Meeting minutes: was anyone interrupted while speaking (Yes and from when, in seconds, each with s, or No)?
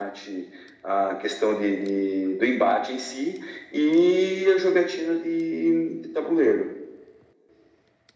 No